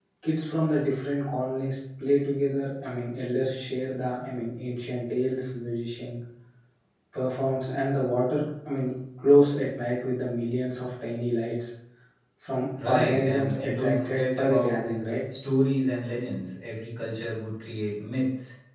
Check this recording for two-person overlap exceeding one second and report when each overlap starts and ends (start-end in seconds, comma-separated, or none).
12.8-14.8